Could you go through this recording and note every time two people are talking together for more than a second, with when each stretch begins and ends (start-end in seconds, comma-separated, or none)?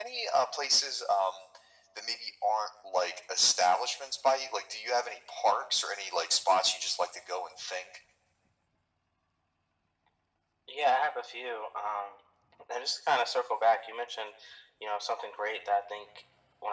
none